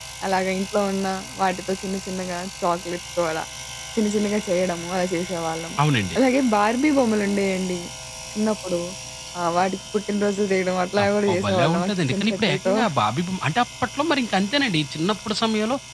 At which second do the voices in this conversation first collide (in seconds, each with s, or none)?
11.0 s